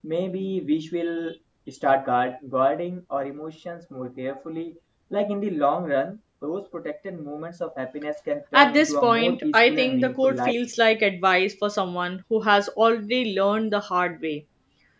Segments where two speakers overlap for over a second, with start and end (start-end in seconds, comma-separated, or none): 8.5-10.5